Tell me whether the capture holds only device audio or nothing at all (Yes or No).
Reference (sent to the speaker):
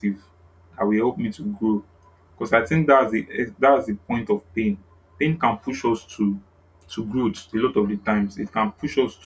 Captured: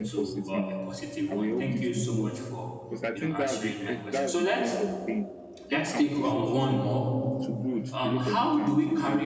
No